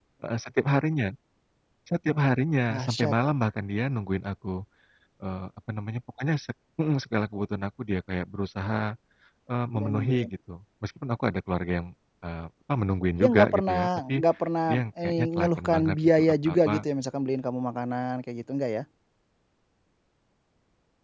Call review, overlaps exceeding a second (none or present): present